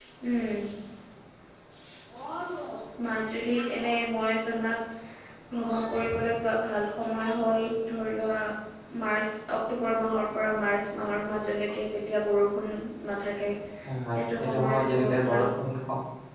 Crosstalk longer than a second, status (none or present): present